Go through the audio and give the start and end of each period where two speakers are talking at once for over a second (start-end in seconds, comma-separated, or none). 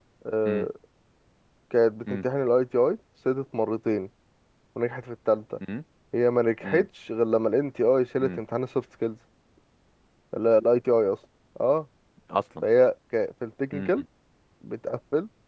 none